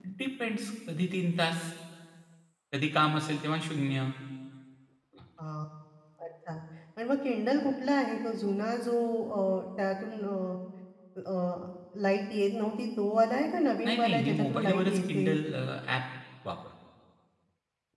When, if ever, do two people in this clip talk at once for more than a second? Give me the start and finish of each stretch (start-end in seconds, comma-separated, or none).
13.9-15.2